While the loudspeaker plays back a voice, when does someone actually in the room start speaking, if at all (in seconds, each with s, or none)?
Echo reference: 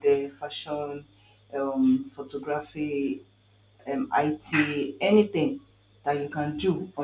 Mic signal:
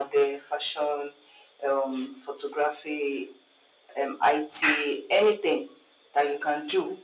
none